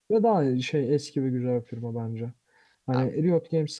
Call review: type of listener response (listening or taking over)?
listening